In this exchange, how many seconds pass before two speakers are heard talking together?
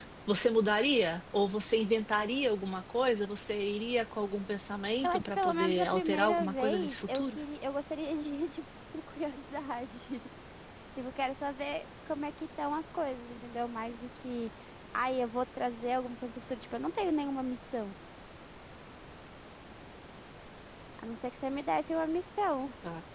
5.0 s

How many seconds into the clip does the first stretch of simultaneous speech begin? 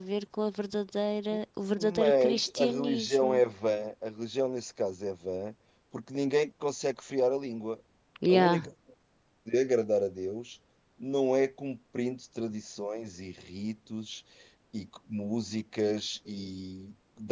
1.8 s

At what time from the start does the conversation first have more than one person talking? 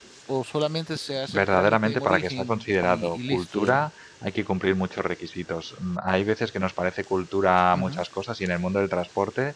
1.3 s

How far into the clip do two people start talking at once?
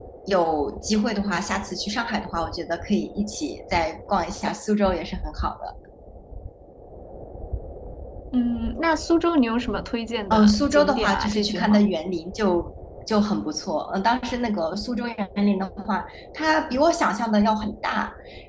10.3 s

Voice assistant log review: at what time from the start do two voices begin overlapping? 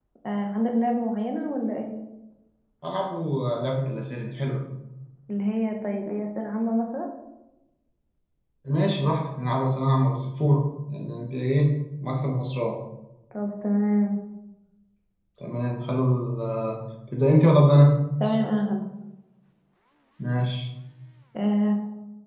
none

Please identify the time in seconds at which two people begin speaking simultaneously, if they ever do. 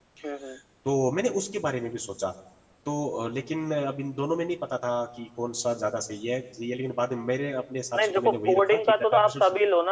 7.9 s

